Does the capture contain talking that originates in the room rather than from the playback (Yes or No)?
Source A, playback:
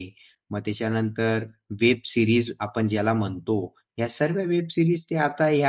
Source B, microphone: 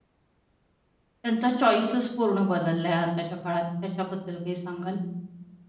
Yes